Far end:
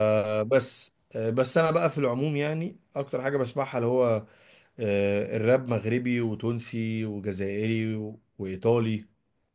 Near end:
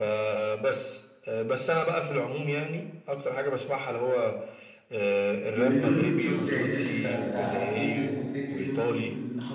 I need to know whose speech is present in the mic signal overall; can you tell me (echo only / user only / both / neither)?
both